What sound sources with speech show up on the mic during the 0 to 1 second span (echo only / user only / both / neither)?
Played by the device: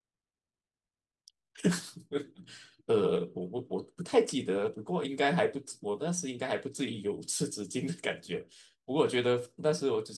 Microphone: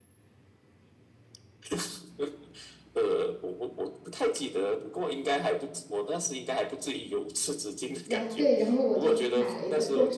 neither